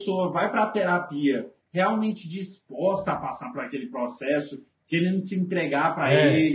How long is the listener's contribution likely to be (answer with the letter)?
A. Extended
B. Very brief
B